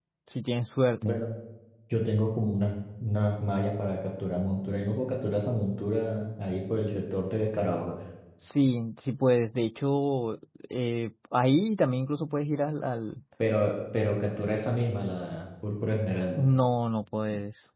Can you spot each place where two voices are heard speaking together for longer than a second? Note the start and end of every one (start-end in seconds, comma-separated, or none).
none